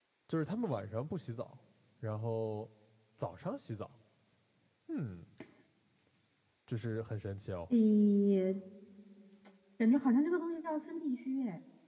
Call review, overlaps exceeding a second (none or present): none